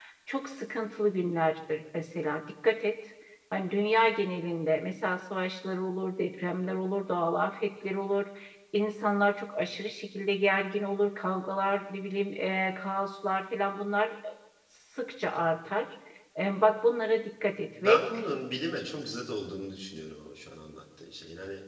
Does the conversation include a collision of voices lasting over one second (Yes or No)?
No